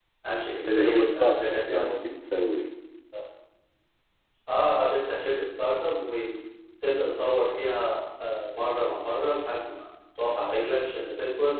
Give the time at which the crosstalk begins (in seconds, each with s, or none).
0.7 s